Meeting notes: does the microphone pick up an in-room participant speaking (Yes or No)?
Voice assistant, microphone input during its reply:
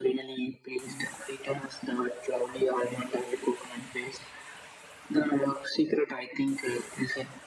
No